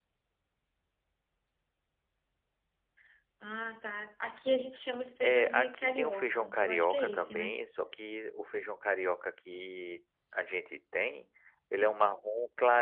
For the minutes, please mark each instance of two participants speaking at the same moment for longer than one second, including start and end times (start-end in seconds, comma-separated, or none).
5.2-7.5